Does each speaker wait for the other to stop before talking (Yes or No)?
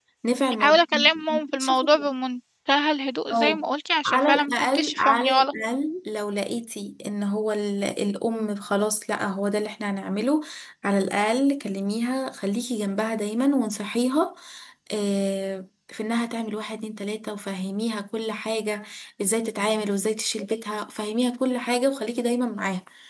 No